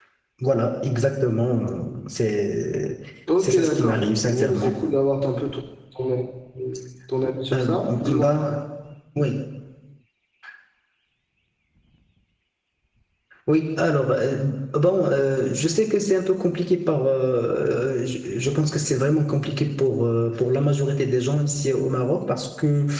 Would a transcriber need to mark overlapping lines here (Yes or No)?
Yes